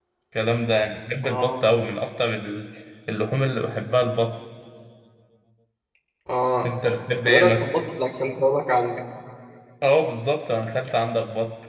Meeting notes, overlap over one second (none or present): none